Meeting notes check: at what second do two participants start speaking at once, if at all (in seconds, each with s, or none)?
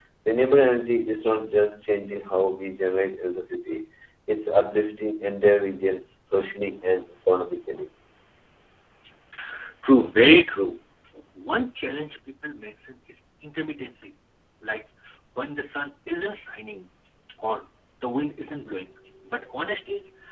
none